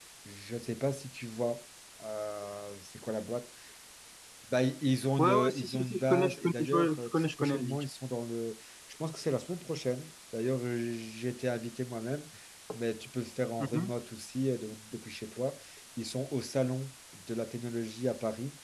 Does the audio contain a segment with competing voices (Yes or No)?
Yes